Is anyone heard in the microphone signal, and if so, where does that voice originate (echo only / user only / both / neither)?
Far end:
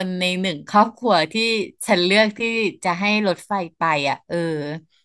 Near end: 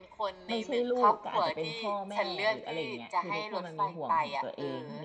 both